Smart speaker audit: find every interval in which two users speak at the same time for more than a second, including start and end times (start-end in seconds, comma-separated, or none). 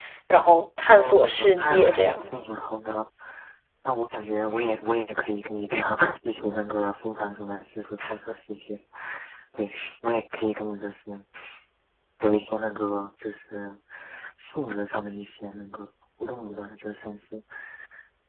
0.9-2.4